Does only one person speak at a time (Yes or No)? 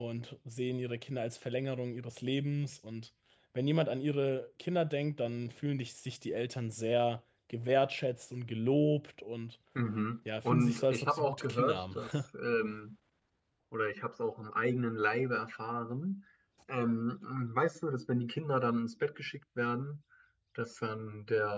No